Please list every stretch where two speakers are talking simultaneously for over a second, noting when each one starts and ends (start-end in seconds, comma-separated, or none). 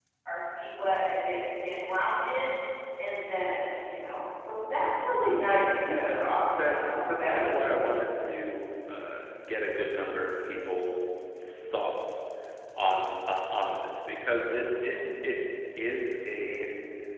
5.8-7.9